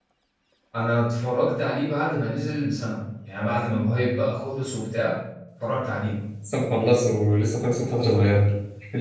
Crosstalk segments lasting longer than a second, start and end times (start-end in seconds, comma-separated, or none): none